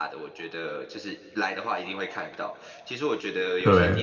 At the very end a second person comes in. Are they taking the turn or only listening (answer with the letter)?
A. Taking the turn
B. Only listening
B